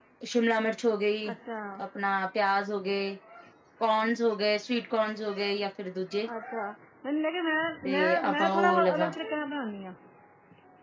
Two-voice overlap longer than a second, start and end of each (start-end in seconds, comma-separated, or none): 7.8-9.1